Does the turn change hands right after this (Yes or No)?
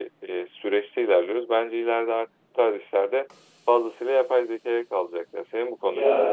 Yes